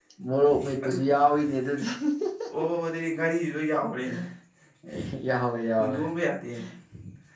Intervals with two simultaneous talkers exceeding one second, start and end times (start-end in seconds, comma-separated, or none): none